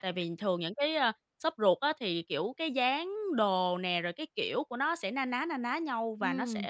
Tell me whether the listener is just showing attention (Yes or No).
No